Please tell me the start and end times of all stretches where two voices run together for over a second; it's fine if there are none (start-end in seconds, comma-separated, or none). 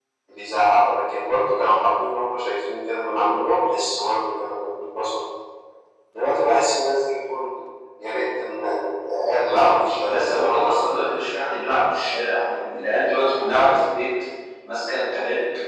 9.4-11.1